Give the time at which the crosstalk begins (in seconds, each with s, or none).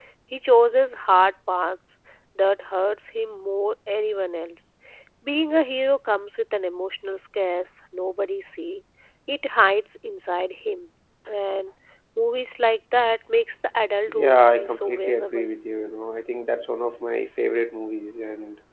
14.1 s